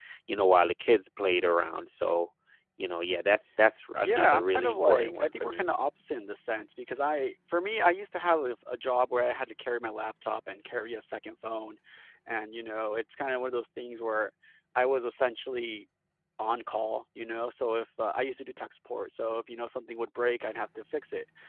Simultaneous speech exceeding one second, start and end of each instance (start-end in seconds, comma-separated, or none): 4.0-5.6